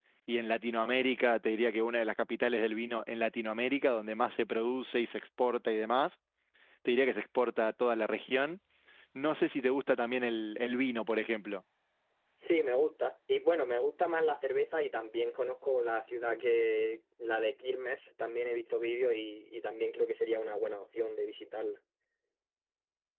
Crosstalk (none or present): none